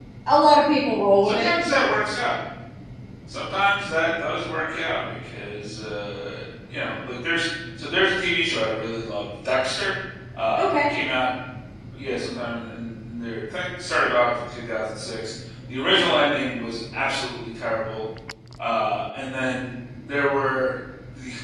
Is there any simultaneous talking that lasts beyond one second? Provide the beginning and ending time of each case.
none

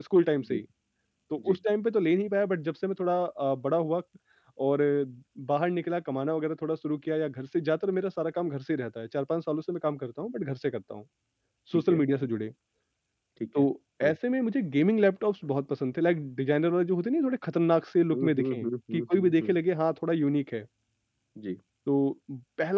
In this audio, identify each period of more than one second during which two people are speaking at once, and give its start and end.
18.1-19.5

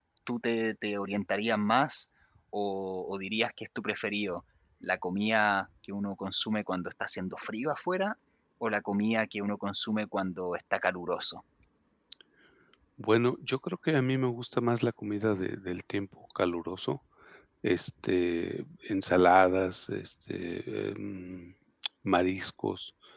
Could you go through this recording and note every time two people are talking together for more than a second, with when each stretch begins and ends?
none

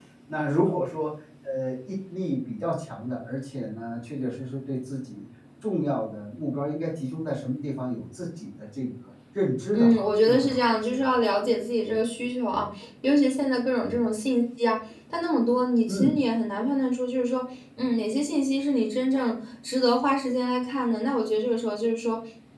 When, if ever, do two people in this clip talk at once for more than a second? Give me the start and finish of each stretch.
9.7-11.2

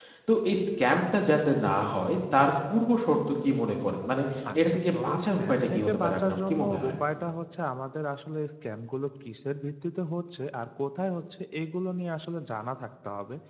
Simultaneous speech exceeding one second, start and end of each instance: 4.7-6.9

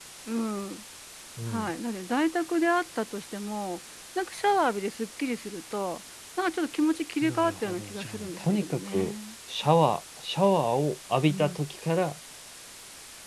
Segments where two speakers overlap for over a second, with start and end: 7.2-9.1

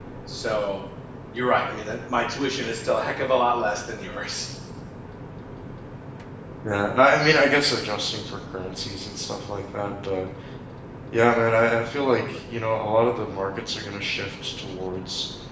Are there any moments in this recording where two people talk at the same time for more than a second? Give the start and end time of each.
none

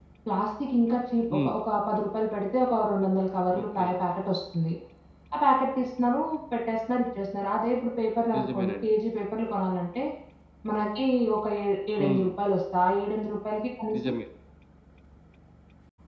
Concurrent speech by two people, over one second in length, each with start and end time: none

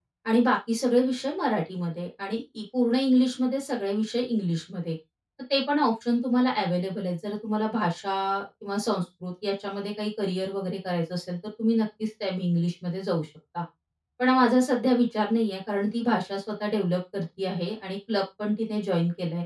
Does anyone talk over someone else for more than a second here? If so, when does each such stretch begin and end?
none

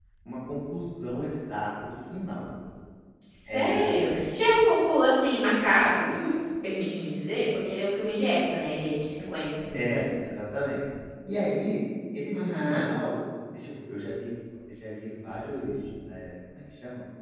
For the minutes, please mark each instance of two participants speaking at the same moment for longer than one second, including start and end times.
none

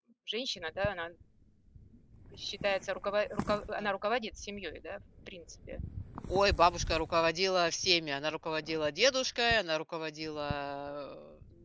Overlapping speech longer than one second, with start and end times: none

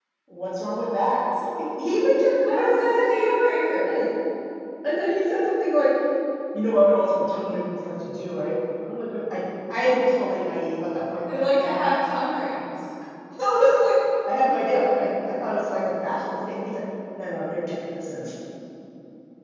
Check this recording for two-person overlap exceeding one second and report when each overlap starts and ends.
2.4-3.9

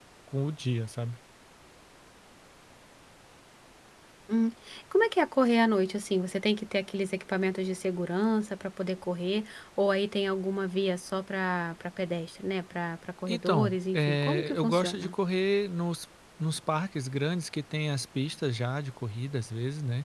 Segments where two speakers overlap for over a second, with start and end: 13.3-15.1

